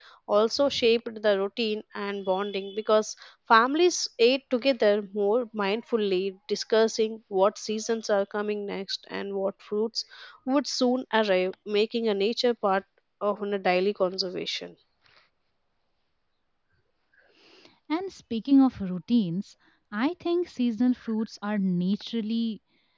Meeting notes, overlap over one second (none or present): none